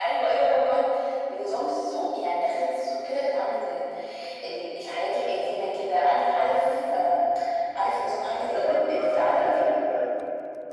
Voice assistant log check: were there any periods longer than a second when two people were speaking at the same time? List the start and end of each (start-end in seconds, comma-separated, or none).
8.4-9.6